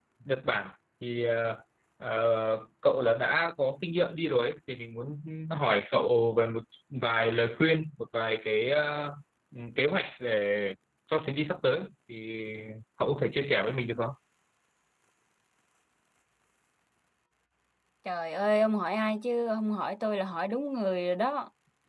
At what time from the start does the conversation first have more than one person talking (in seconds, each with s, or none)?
none